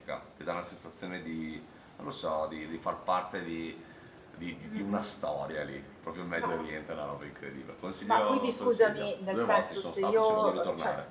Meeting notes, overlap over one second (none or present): present